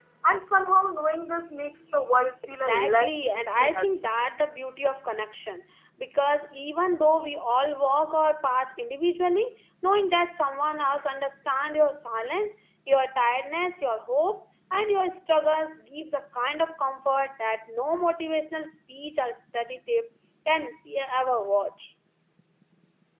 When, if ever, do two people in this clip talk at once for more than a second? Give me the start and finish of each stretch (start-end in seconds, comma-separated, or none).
2.5-4.0